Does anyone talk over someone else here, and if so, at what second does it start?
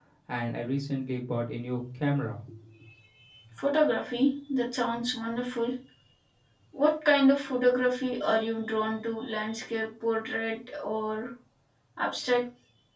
none

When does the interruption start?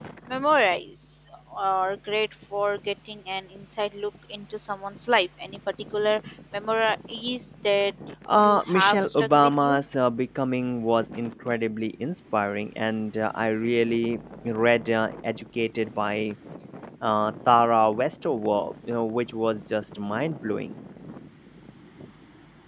8.4 s

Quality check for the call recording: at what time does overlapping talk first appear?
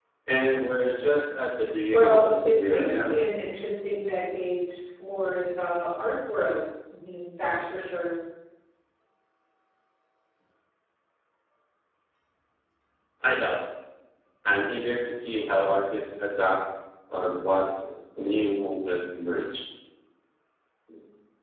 1.9 s

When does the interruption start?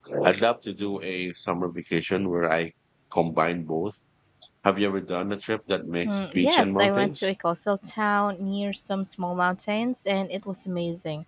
6.0 s

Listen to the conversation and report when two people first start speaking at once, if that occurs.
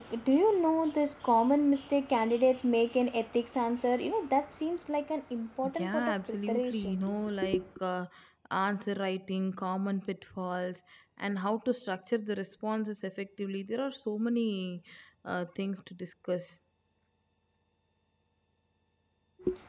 5.6 s

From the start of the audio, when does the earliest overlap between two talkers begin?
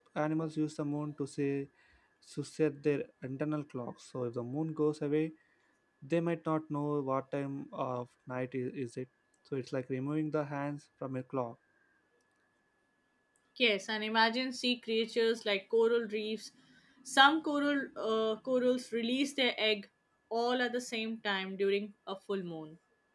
none

